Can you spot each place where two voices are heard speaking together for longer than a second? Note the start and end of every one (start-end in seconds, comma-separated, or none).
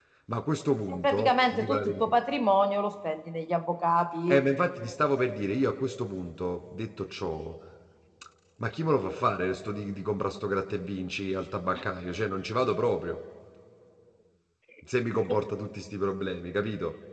0.9-2.1